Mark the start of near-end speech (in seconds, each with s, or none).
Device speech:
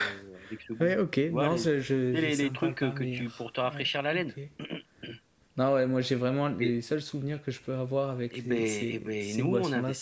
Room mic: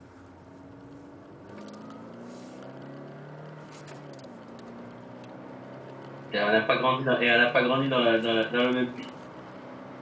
6.3 s